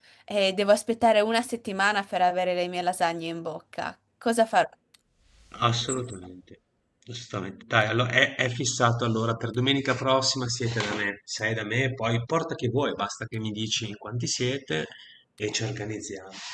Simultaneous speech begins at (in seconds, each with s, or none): none